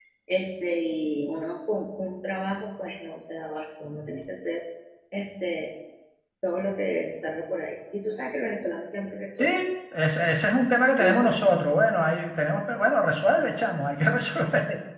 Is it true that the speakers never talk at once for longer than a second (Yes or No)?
Yes